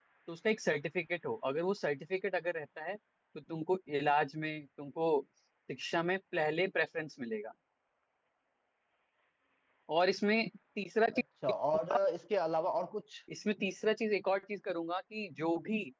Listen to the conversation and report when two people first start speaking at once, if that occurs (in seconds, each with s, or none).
none